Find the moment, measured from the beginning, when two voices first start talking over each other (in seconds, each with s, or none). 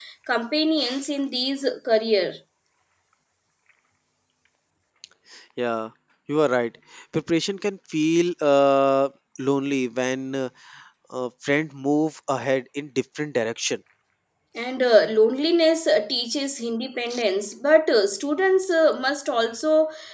none